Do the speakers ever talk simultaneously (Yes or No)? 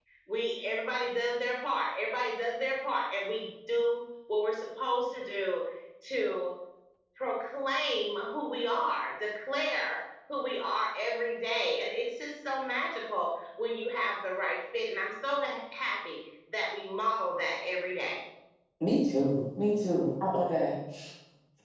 No